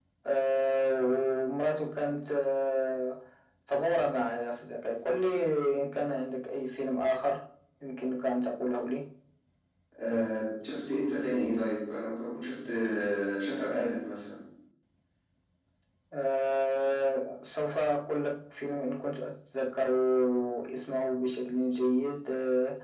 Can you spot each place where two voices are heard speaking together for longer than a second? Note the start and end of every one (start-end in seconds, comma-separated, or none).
none